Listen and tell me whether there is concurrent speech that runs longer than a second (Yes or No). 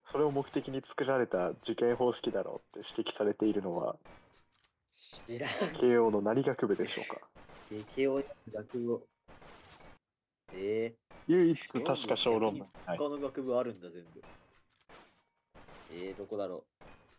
Yes